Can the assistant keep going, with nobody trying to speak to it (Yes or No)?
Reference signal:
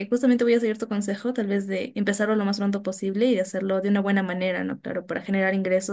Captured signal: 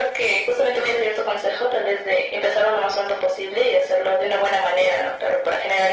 Yes